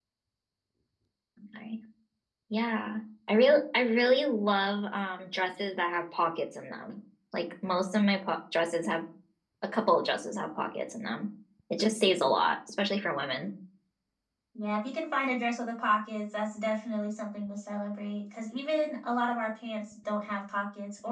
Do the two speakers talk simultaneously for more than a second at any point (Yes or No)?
No